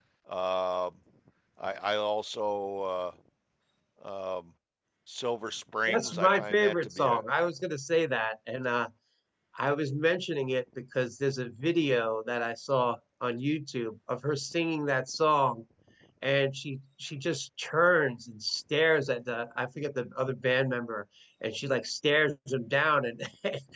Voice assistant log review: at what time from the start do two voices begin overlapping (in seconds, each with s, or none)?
5.9 s